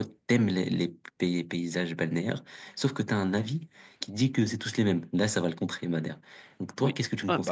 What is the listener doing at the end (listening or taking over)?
taking over